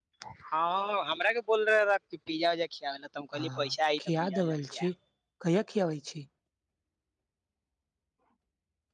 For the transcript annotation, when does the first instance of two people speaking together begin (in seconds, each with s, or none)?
3.3 s